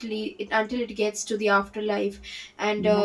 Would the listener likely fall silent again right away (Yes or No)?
Yes